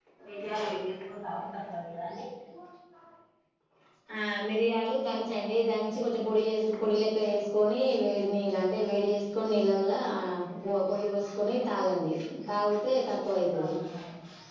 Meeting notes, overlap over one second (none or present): none